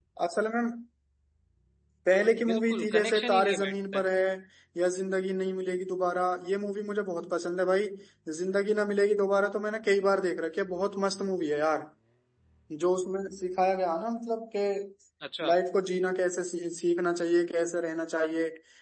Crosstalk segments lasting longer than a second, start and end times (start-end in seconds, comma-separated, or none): 2.5-4.1